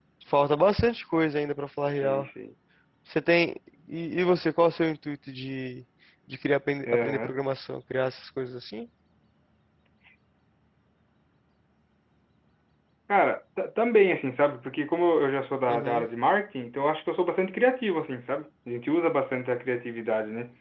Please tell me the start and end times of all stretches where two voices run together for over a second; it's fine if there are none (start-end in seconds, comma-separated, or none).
none